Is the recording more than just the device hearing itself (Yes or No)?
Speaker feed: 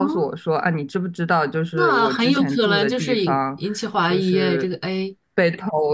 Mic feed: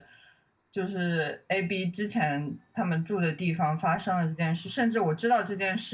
Yes